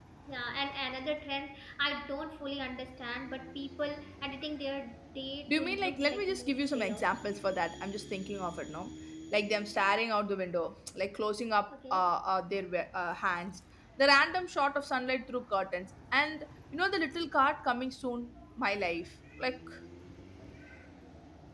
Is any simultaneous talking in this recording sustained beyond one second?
Yes, from 5.5 s

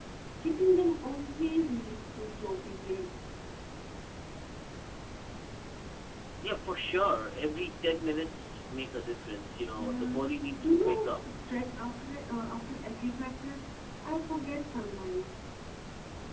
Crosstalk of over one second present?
Yes, from 9.8 s

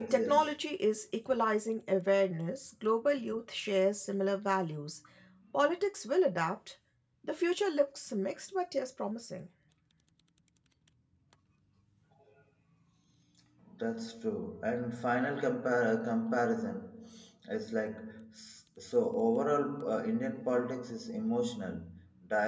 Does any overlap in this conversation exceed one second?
No

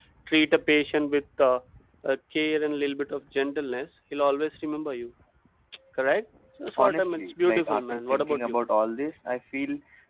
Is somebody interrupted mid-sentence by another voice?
Yes, from 6.8 s

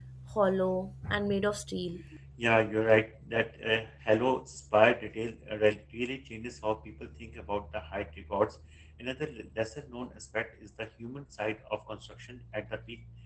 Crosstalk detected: No

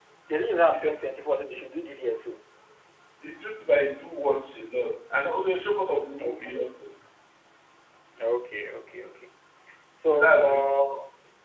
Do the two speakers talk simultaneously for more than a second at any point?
No

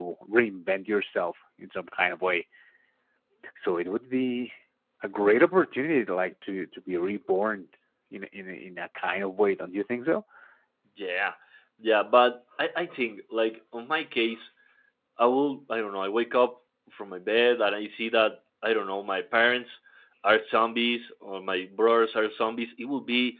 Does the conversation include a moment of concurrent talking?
No

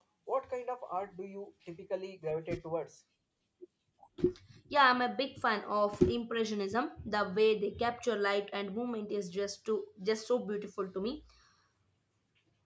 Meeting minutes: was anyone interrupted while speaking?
No

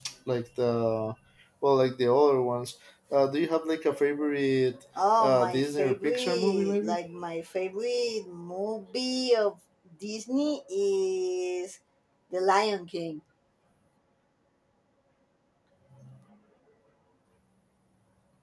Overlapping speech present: Yes, from 5.2 s

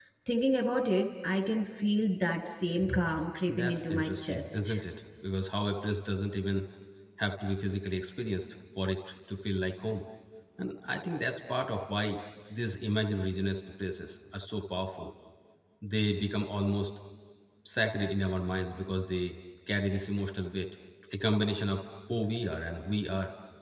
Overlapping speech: Yes, from 3.5 s

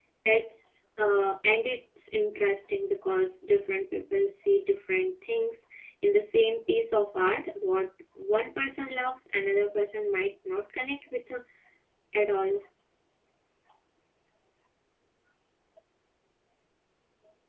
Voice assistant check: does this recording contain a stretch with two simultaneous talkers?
No

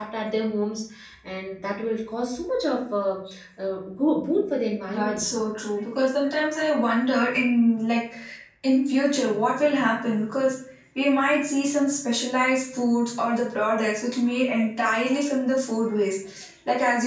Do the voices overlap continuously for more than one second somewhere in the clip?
No

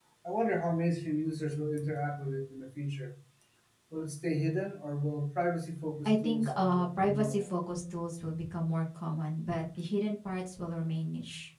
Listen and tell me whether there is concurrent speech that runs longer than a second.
Yes, from 6.0 s

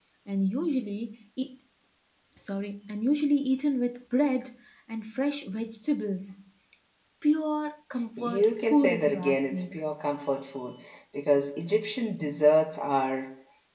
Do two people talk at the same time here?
Yes, from 8.2 s

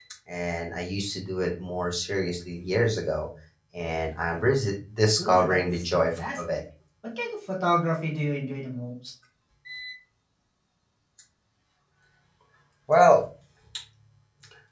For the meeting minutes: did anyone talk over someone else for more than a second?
Yes, from 5.2 s

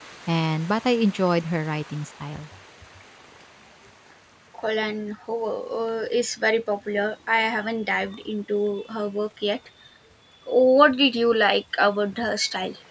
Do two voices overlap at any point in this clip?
No

